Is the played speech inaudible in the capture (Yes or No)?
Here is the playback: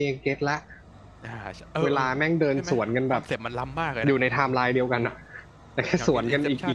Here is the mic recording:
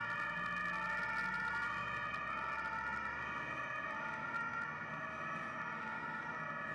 Yes